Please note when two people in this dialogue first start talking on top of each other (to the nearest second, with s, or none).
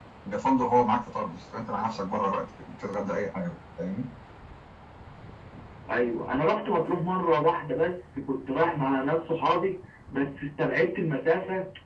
none